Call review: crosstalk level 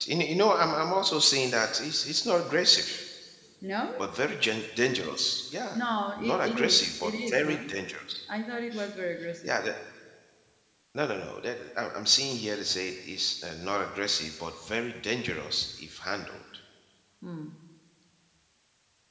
present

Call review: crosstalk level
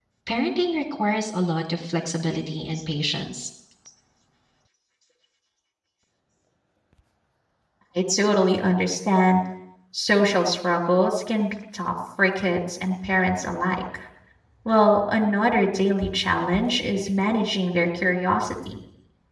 none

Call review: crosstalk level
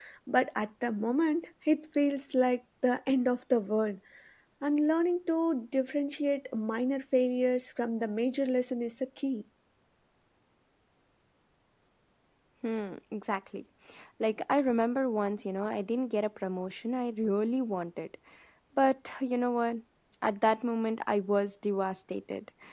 none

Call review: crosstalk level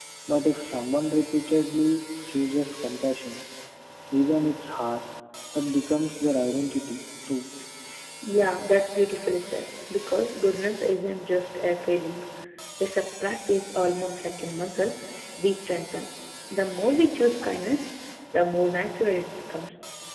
none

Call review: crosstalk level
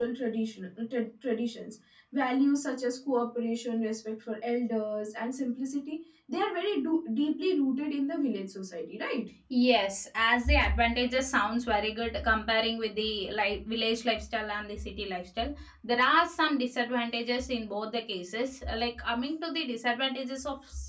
none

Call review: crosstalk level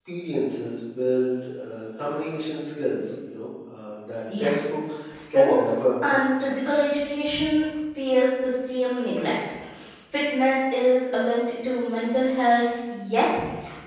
present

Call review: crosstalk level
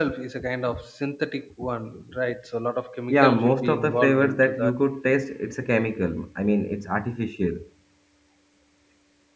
present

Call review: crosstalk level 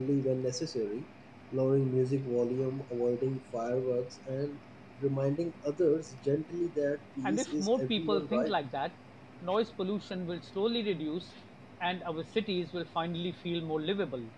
present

